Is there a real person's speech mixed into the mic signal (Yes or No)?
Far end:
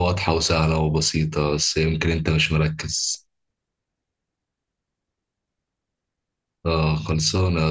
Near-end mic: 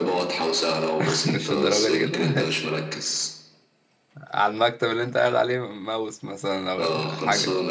Yes